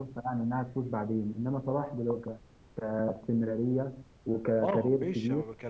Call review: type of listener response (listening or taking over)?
taking over